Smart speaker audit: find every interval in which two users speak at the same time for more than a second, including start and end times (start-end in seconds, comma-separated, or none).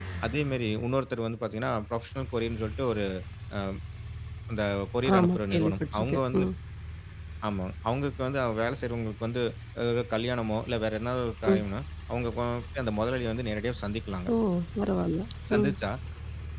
5.2-6.4